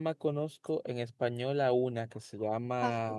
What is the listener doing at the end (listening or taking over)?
listening